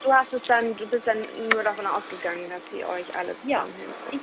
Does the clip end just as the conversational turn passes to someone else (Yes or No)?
Yes